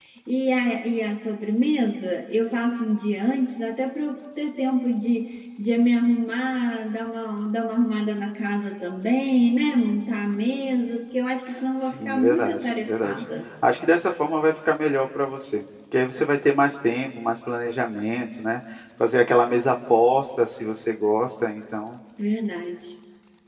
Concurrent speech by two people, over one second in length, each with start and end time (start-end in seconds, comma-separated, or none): 11.8-13.2